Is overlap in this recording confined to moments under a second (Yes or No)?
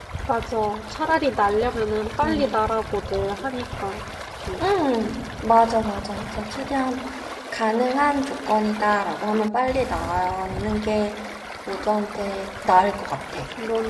Yes